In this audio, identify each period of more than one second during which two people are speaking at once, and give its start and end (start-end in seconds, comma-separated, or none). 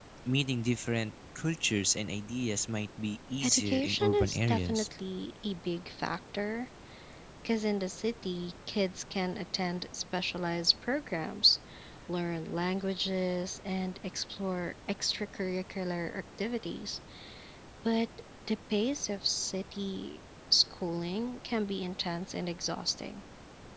3.4-4.8